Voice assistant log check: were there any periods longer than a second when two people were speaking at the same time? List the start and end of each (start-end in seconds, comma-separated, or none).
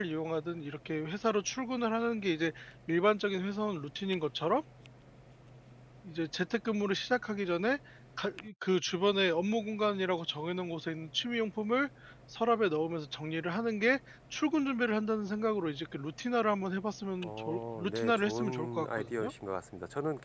17.2-19.3